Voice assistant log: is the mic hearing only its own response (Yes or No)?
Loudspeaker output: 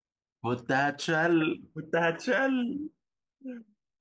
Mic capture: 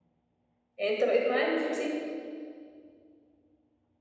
No